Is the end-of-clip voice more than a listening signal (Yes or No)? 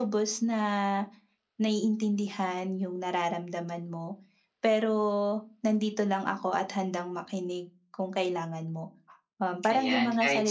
Yes